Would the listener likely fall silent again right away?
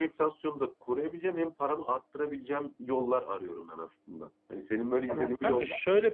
No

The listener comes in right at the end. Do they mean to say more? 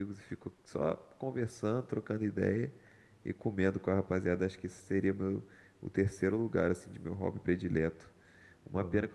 No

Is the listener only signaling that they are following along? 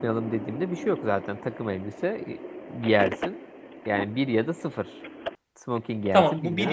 No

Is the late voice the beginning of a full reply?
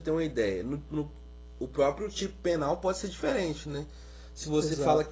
No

